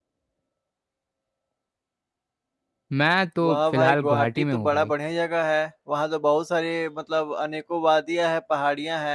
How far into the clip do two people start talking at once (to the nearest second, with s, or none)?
3 s